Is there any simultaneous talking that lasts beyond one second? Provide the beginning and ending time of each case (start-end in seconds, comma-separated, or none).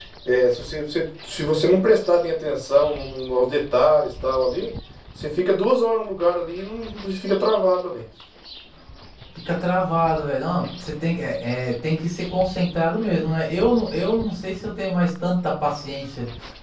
none